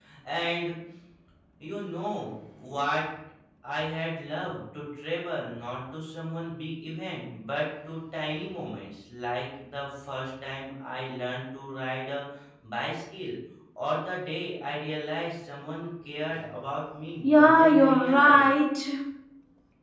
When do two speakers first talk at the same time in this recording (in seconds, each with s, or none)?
17.2 s